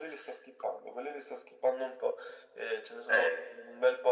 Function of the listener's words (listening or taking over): listening